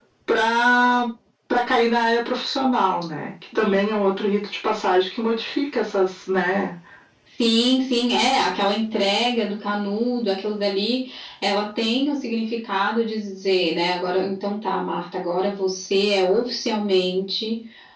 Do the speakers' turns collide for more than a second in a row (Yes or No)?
No